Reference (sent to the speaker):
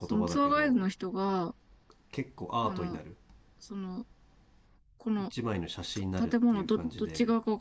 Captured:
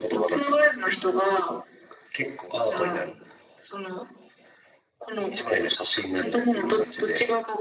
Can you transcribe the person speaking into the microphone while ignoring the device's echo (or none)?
none